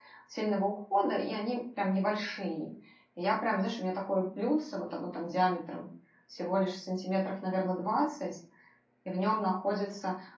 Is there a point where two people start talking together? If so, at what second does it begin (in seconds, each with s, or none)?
none